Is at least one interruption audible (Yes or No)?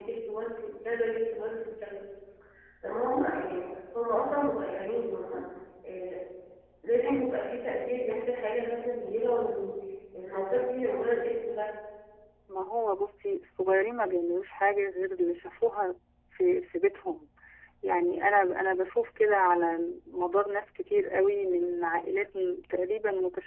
No